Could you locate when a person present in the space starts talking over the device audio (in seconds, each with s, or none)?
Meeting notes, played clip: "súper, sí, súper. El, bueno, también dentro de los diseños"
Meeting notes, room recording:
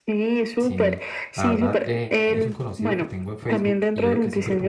0.6 s